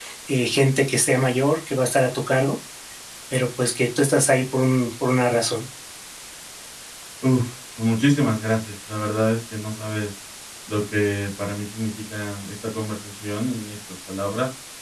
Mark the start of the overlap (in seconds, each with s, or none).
none